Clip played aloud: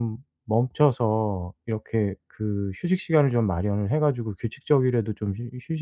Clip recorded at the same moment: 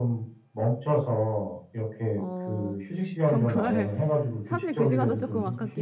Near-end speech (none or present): present